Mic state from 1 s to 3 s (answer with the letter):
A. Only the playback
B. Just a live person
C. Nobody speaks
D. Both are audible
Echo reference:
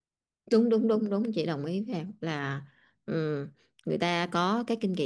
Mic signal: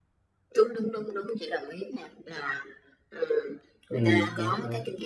A